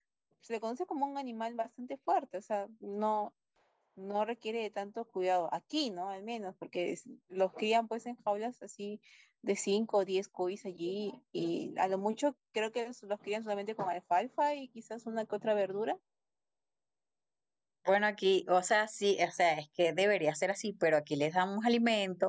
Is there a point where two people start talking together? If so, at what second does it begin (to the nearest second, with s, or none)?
none